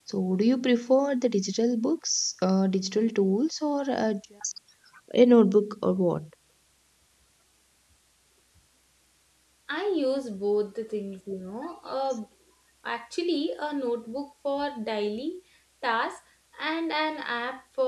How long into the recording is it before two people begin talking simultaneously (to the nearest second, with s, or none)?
none